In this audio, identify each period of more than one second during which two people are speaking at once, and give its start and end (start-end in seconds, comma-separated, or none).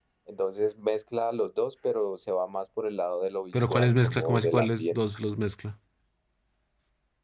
3.7-5.0